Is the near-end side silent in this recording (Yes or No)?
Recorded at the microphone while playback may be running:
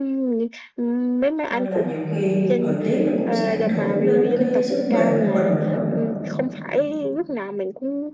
No